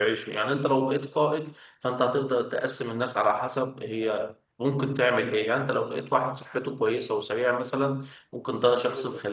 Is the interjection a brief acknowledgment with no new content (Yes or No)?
Yes